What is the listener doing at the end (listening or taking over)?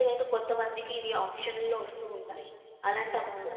listening